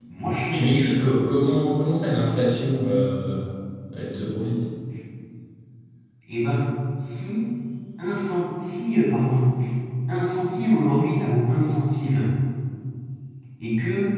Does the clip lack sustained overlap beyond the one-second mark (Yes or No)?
Yes